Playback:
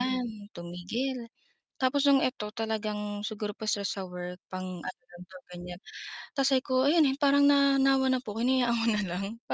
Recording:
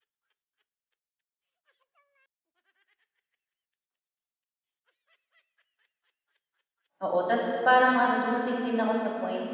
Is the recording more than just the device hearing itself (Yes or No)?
Yes